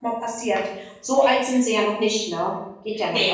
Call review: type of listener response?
taking over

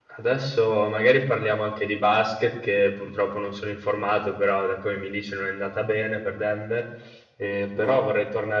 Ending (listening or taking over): listening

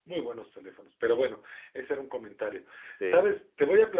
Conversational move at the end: listening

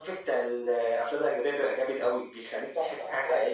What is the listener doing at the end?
taking over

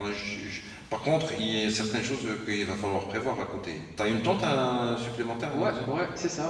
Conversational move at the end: taking over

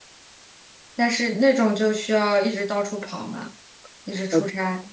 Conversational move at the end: taking over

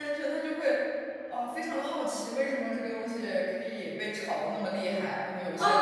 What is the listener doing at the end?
taking over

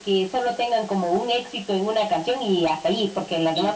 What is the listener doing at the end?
listening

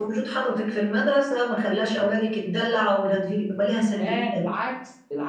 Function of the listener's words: taking over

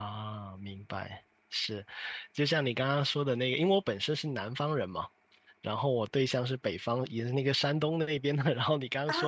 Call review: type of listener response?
listening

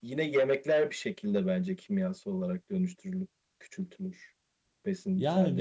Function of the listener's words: taking over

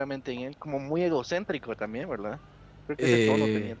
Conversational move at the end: taking over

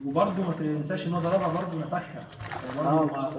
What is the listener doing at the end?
taking over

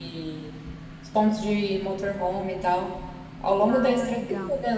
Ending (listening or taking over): listening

